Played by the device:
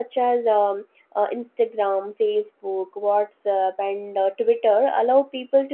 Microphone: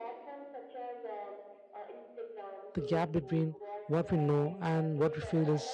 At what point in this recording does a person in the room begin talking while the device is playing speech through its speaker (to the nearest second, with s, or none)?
3 s